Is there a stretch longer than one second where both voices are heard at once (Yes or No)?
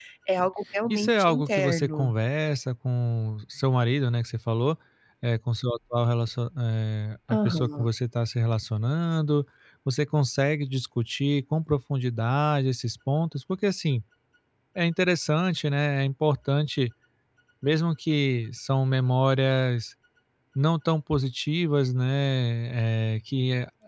Yes